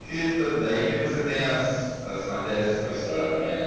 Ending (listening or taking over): taking over